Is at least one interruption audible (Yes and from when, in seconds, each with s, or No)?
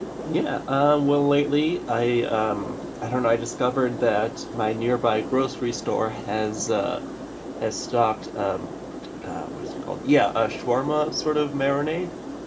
No